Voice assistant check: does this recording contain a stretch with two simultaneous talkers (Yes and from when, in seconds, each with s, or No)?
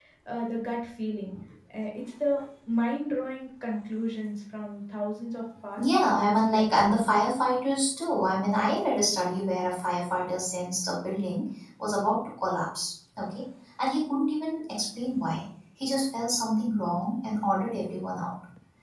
Yes, from 5.8 s